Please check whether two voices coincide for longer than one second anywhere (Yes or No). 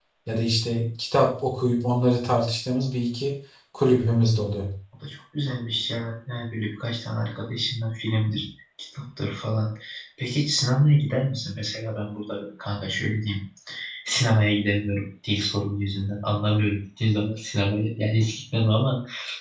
No